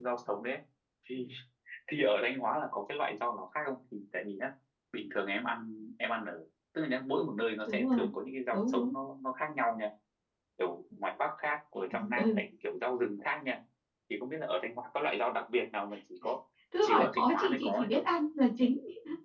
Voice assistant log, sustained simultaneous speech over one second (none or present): present